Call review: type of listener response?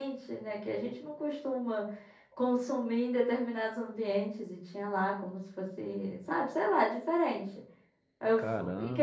listening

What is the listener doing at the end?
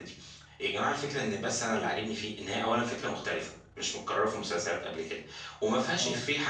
listening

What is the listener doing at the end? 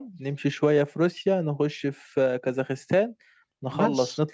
taking over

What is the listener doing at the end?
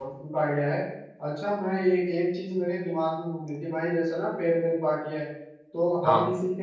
listening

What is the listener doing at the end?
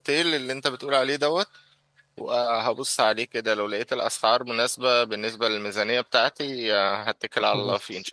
taking over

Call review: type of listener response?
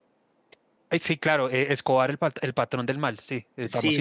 taking over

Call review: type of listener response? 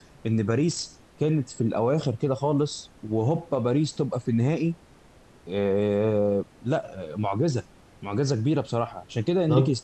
taking over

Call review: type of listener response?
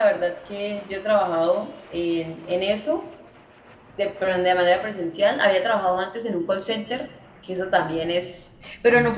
listening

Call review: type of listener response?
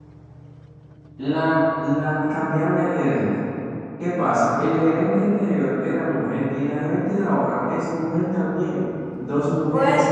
listening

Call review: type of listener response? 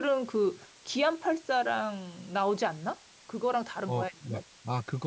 taking over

